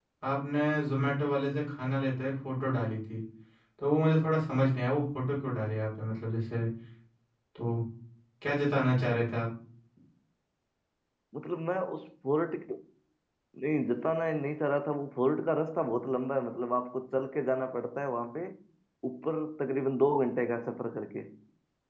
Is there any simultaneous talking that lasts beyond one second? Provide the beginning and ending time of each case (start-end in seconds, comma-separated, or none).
none